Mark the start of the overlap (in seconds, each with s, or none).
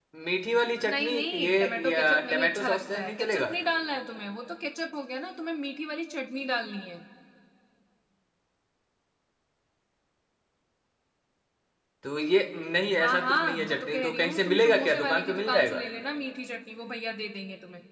0.9 s